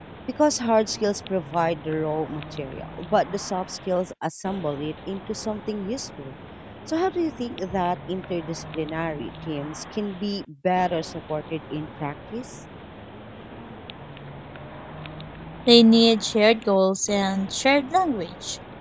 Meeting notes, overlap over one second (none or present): none